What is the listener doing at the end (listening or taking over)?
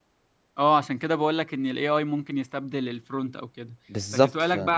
listening